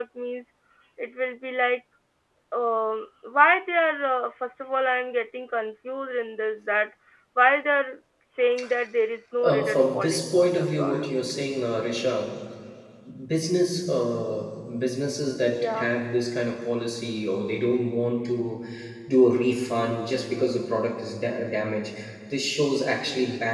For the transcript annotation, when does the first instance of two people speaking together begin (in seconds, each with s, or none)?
9.4 s